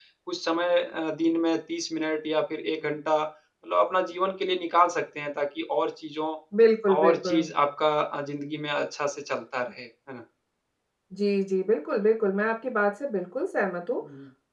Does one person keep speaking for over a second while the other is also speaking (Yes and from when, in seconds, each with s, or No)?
No